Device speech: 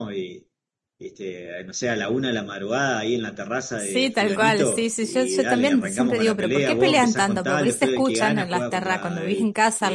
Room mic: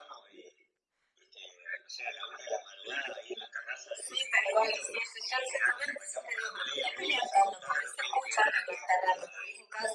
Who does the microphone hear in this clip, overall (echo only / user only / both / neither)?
echo only